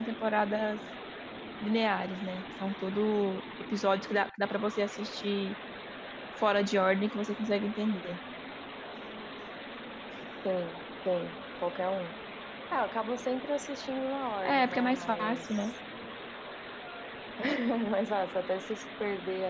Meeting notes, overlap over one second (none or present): present